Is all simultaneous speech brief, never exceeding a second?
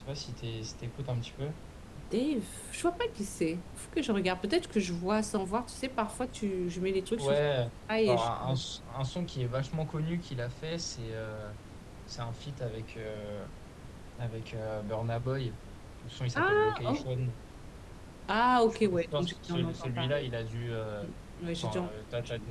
No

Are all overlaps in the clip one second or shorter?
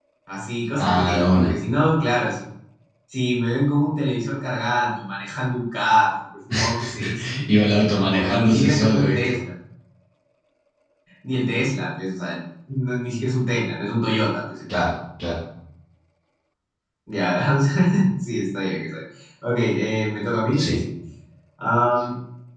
No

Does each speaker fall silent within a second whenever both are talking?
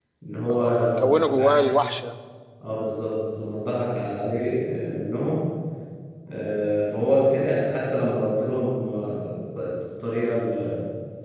No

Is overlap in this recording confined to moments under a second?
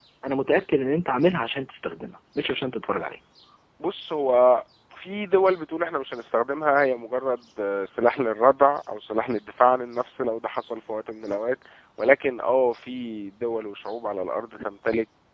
Yes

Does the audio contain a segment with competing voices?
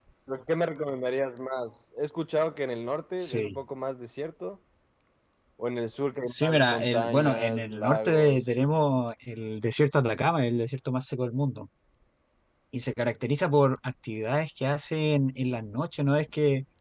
Yes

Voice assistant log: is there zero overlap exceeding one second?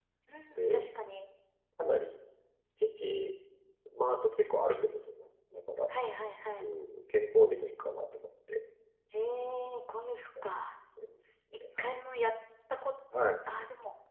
Yes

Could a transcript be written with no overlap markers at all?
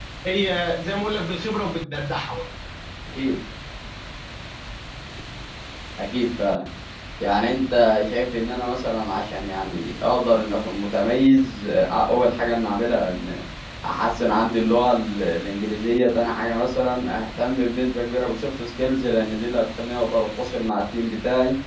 Yes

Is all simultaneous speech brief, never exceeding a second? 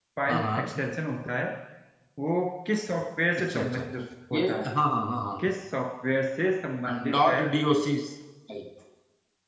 Yes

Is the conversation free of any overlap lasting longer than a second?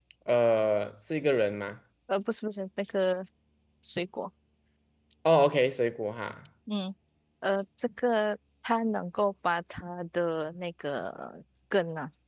Yes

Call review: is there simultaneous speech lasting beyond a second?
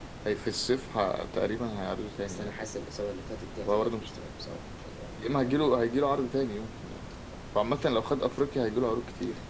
No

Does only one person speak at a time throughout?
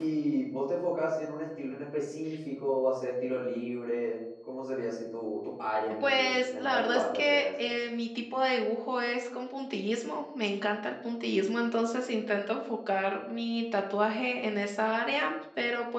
No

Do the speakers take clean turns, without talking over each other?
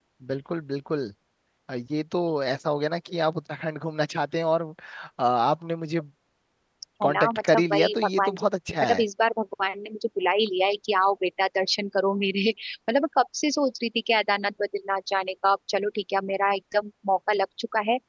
No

